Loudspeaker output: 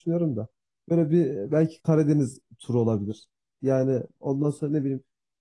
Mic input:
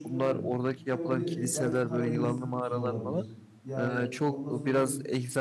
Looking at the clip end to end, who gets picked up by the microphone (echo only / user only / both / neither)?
both